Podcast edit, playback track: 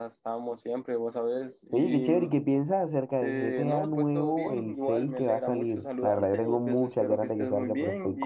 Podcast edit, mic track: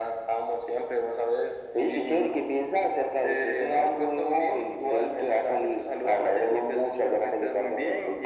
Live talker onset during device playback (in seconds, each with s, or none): none